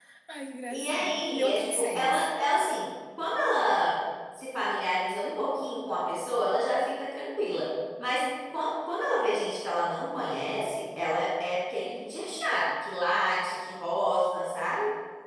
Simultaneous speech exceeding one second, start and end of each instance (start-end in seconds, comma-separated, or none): 0.7-2.3